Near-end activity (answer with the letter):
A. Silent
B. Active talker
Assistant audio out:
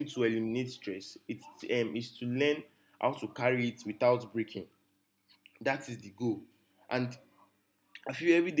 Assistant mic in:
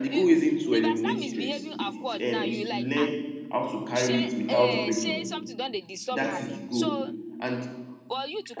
B